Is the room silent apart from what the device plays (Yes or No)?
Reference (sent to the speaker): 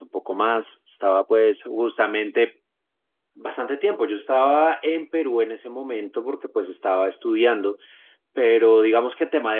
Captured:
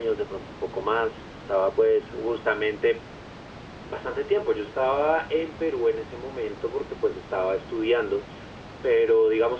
Yes